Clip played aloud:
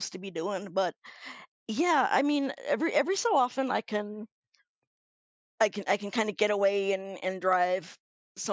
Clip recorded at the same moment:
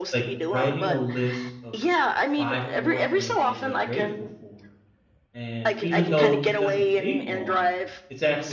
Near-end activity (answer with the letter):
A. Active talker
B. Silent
A